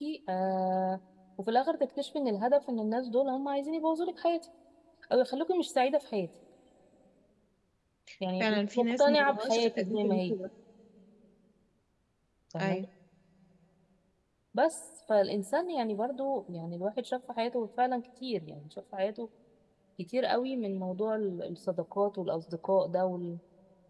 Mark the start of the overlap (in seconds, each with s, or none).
8.4 s